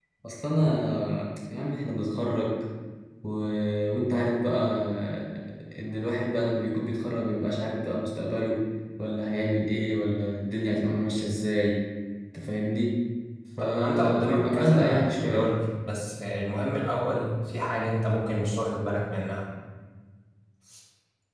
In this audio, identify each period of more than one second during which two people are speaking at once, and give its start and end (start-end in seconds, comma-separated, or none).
13.6-15.5